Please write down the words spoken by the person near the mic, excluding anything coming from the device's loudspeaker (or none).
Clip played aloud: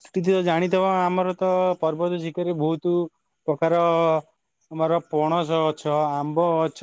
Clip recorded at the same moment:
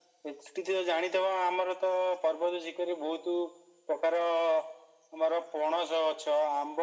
none